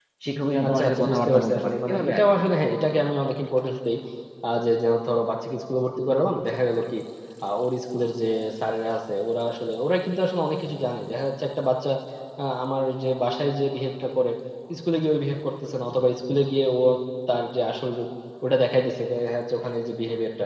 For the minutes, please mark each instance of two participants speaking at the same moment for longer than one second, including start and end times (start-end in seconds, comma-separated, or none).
0.7-2.2